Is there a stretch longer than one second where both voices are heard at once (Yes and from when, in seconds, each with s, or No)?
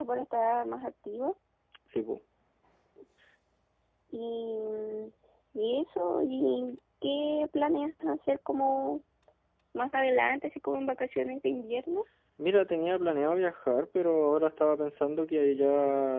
No